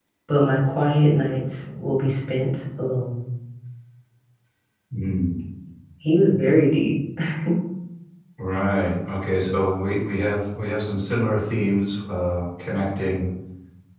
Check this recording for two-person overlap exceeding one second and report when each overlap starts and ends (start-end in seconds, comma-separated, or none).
none